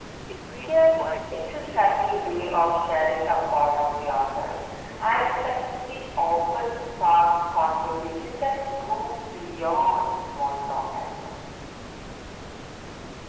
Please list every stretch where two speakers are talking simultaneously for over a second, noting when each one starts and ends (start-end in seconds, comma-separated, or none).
0.6-2.6